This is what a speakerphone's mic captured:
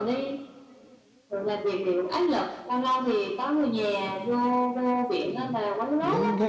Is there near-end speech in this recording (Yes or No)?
Yes